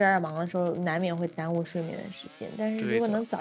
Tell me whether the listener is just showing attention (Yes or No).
Yes